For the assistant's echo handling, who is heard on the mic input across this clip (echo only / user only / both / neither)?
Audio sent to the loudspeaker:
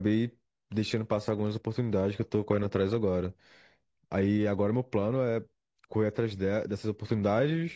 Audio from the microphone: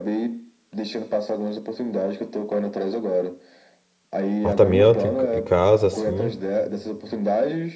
both